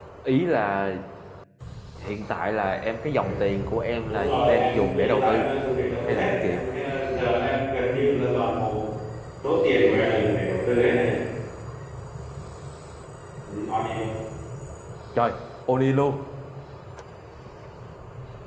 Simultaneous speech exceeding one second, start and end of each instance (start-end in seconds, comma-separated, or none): 4.1-5.5